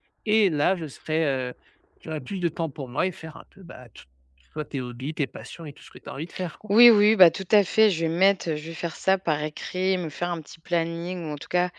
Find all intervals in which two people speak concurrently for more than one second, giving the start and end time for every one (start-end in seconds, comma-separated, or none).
none